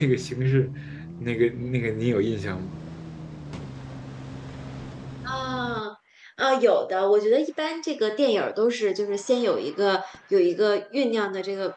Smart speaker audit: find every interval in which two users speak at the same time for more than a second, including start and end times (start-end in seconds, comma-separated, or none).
none